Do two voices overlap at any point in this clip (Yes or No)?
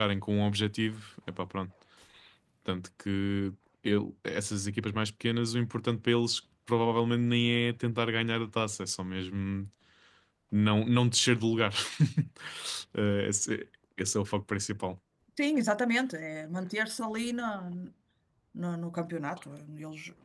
No